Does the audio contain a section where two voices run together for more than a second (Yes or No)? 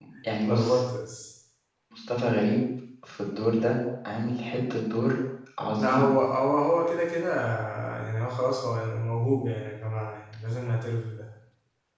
No